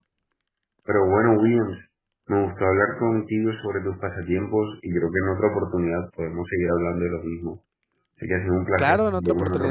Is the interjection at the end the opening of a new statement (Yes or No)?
Yes